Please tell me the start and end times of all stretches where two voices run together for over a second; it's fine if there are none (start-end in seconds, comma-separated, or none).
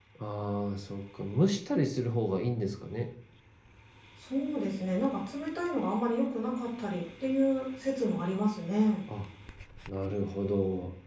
none